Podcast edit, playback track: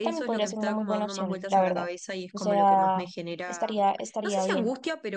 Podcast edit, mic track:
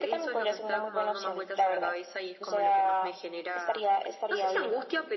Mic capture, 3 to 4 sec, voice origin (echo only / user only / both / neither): echo only